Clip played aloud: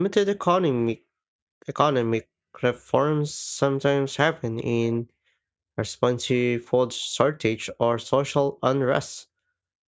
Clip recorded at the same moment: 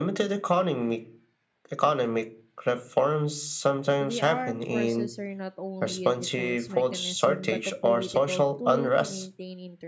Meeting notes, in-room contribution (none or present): present